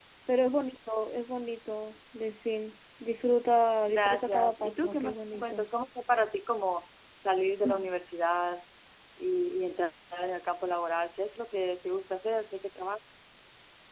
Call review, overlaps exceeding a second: present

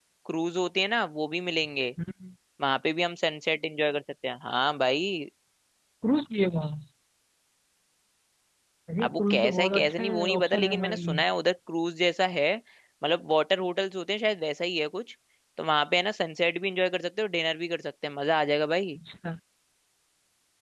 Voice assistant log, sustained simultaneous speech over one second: present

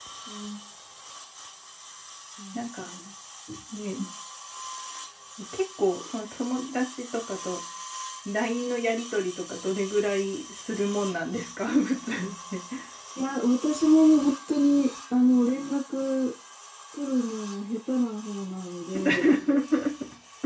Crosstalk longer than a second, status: none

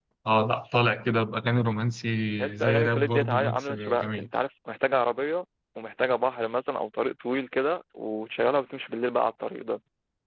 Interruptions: present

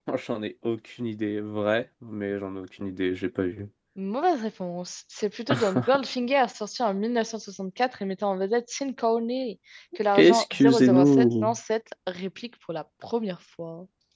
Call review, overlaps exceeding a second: present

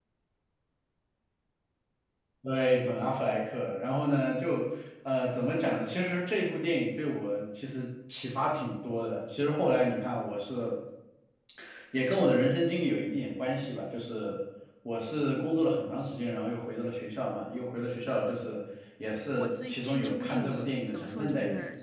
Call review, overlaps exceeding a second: present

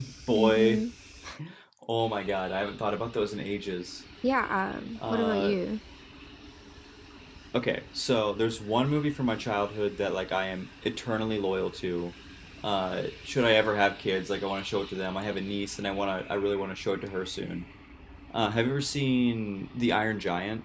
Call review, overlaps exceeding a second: none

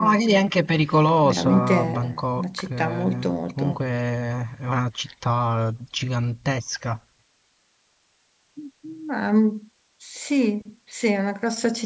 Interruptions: present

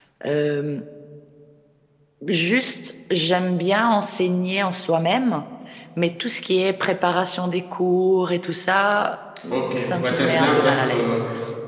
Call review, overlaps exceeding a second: present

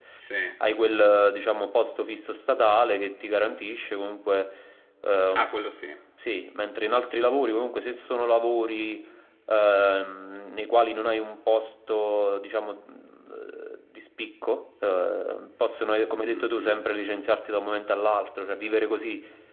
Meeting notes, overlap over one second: none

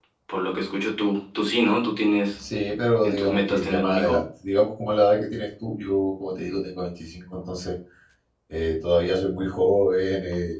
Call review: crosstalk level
present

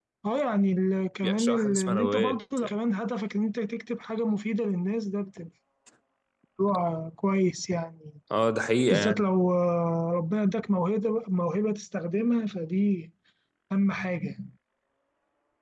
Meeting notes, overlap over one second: present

